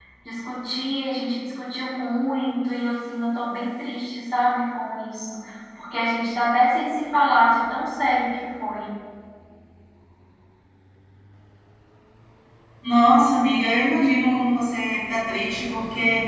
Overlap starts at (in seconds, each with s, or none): none